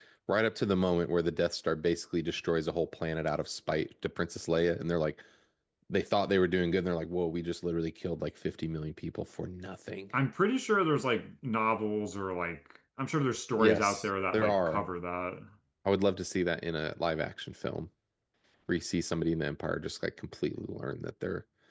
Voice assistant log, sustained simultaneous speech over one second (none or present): present